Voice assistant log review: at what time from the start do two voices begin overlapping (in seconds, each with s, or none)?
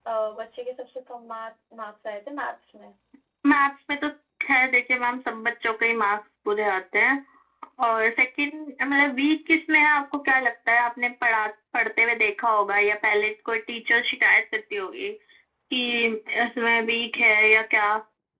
none